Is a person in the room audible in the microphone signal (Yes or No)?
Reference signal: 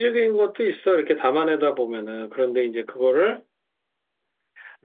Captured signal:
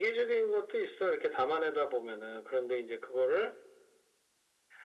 No